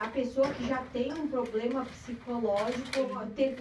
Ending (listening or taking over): taking over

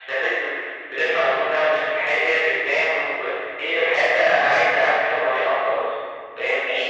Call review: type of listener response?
taking over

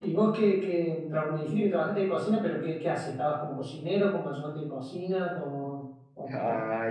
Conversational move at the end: taking over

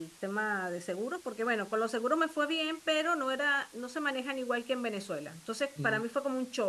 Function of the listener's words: listening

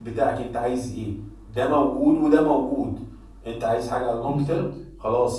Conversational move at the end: listening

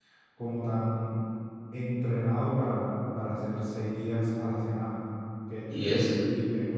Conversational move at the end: listening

